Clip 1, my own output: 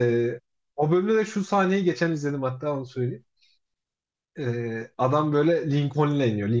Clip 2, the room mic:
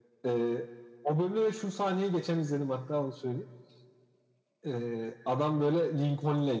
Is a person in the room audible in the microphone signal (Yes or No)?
No